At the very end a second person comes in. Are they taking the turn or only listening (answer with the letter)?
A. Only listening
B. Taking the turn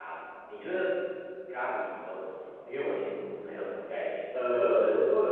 B